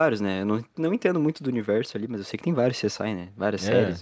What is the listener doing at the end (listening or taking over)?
taking over